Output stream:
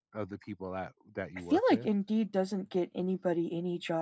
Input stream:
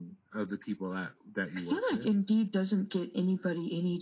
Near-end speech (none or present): none